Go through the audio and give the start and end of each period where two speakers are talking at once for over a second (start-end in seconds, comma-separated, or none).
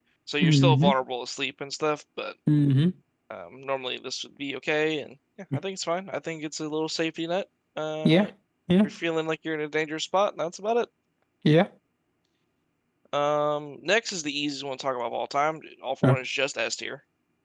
none